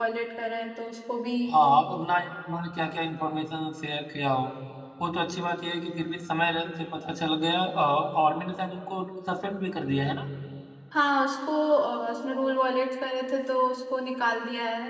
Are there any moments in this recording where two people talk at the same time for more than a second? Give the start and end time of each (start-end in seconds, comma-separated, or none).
none